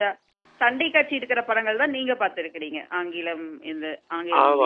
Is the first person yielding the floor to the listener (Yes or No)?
Yes